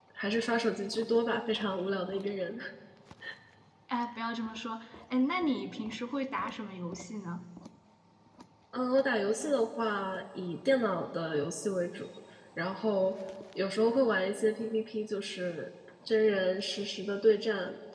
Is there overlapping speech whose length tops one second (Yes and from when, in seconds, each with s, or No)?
No